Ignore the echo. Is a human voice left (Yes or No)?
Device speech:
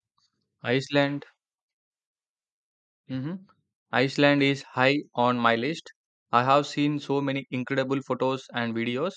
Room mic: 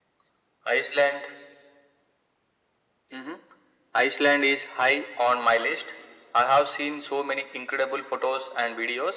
No